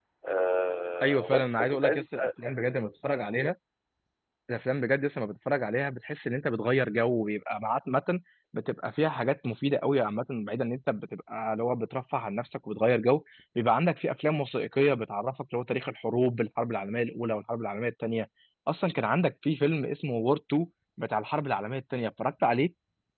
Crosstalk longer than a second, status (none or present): present